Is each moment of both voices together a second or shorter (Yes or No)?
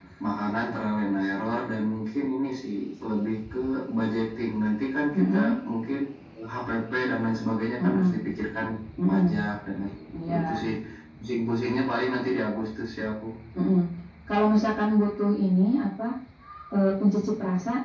Yes